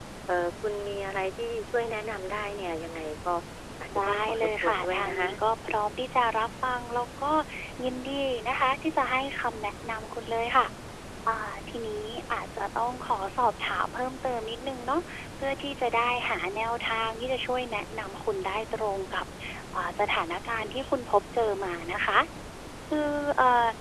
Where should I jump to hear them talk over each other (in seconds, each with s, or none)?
4.1 s